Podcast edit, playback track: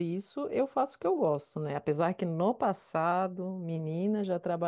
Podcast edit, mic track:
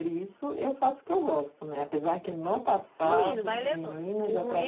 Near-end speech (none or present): present